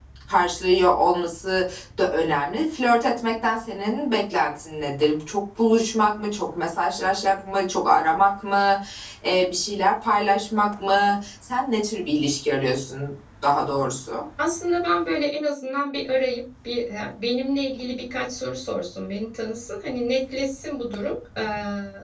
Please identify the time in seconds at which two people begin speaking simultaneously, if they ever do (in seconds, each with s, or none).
none